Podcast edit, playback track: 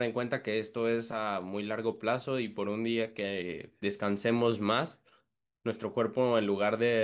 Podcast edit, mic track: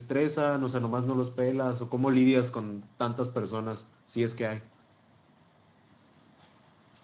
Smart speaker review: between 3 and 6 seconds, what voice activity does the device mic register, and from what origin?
user only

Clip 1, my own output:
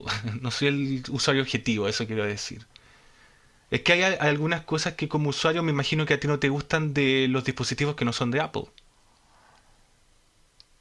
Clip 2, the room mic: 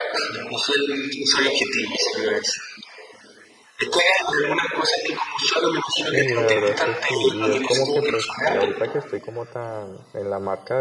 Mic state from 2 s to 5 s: echo only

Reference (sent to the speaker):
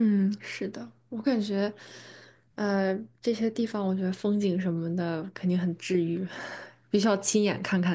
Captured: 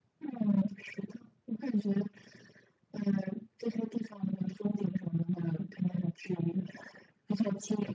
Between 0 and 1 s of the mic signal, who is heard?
echo only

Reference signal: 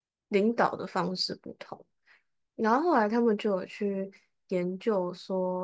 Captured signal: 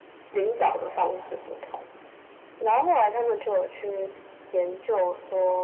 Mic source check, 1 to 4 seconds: echo only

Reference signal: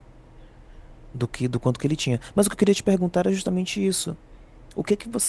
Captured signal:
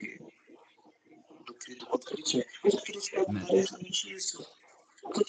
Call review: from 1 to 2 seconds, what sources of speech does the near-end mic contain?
echo only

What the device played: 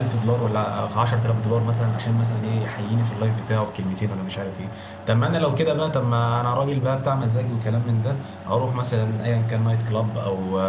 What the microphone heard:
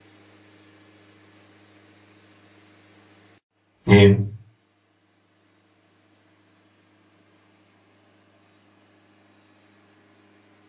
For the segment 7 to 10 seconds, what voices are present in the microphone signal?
neither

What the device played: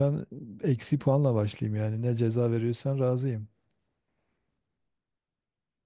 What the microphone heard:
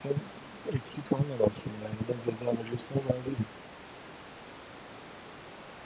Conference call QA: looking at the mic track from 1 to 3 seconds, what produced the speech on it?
echo only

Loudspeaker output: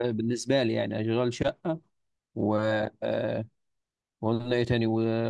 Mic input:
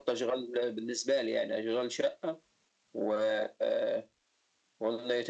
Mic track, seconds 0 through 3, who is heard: echo only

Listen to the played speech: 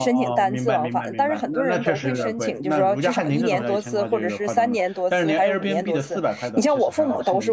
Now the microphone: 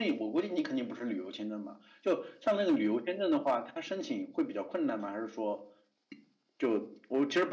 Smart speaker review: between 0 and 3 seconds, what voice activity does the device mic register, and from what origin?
user only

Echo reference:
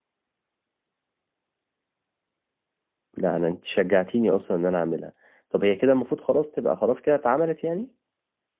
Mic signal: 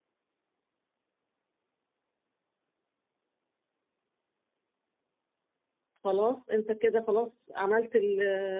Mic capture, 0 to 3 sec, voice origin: neither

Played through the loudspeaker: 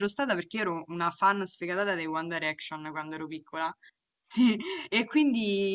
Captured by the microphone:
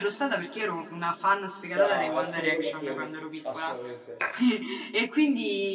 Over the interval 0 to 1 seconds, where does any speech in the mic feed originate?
echo only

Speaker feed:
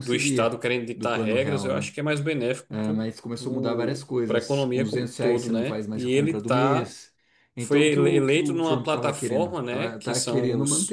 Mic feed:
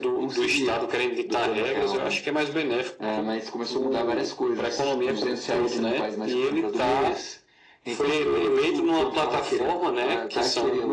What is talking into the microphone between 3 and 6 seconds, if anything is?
echo only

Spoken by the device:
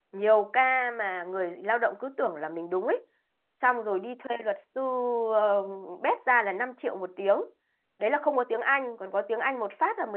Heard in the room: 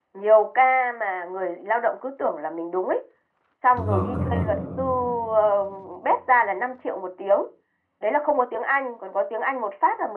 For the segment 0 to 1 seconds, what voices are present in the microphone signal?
echo only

